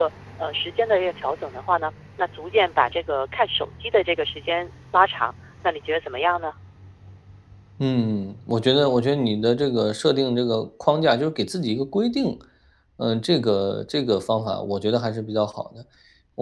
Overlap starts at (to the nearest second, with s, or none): none